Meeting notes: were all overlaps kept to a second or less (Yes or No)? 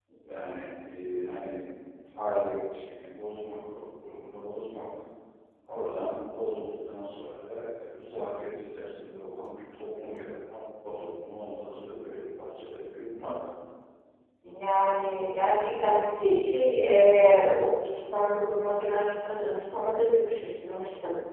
Yes